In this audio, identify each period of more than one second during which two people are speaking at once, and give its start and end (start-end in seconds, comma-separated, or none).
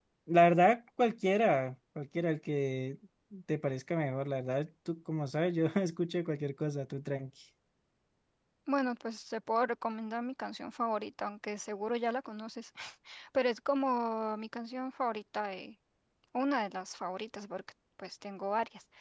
none